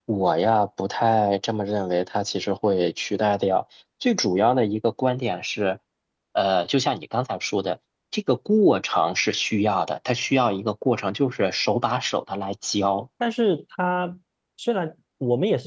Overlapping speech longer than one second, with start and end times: none

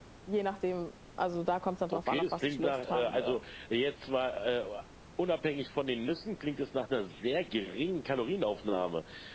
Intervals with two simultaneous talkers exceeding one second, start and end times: 1.9-3.4

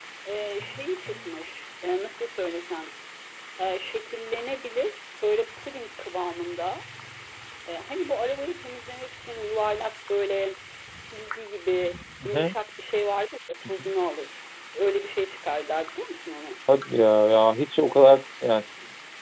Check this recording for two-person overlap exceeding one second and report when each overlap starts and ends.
none

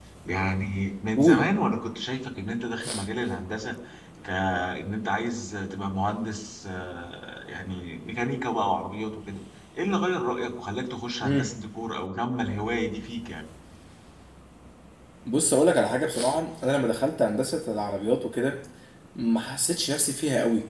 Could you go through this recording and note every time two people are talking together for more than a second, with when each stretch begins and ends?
none

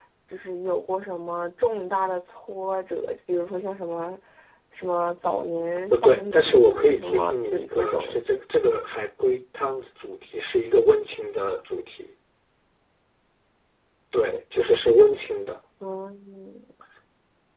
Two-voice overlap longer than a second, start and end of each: 5.9-8.1

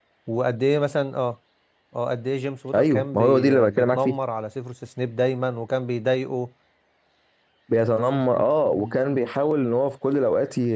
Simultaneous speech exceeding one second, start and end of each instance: 2.8-4.2

